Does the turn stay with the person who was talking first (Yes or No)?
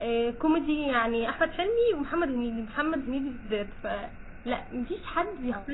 Yes